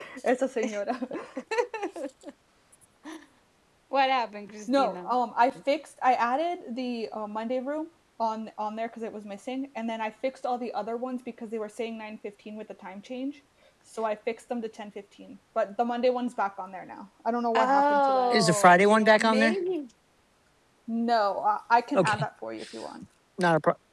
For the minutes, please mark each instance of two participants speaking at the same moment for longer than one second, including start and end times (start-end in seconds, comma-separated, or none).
17.5-19.6